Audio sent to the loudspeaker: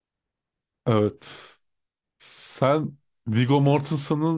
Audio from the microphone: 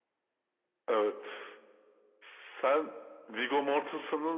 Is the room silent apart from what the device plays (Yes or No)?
Yes